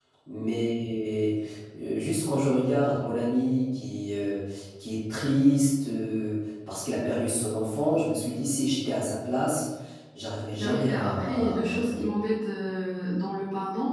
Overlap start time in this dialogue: 10.6 s

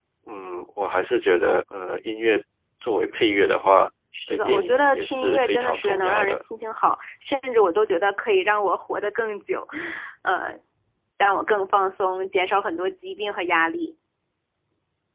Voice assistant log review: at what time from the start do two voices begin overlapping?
4.3 s

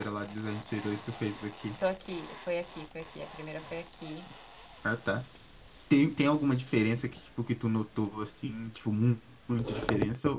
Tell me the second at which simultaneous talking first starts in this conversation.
none

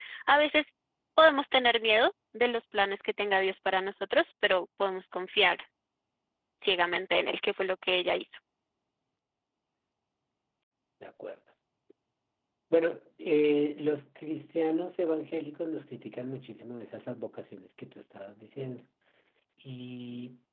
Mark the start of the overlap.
none

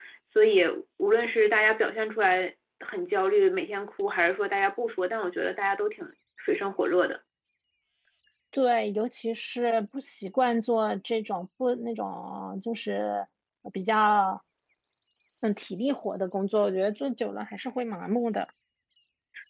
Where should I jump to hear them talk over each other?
none

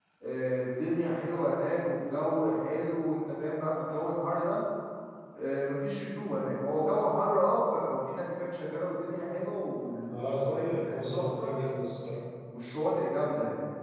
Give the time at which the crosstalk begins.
10.1 s

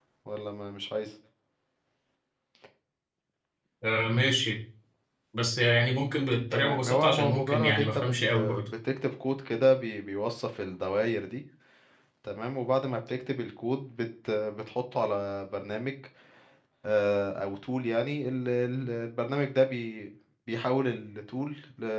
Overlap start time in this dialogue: 6.5 s

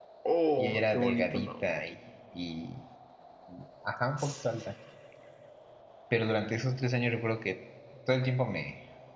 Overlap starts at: 0.6 s

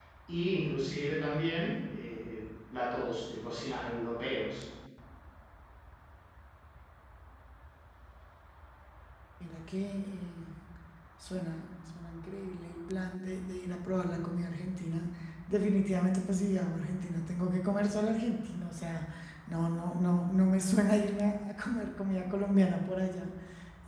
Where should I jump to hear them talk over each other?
none

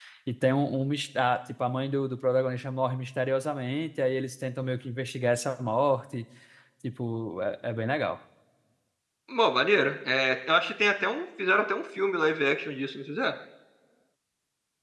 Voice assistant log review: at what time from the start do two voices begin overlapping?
none

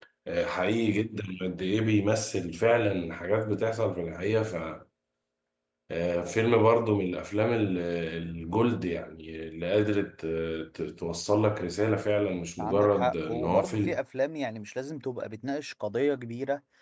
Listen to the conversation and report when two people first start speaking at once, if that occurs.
12.6 s

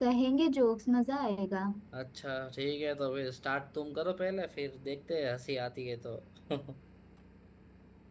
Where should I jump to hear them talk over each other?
none

